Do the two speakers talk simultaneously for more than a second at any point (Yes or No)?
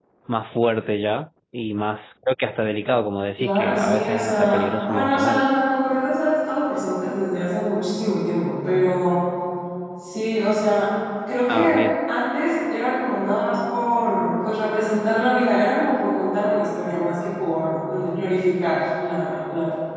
Yes